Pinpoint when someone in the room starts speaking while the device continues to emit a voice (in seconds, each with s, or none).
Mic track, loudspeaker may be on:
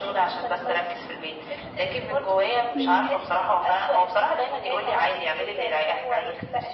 2.8 s